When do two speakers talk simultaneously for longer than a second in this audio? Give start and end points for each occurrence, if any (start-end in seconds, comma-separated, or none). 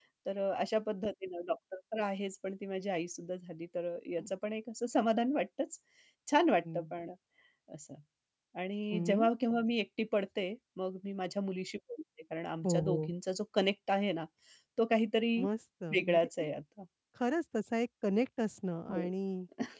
none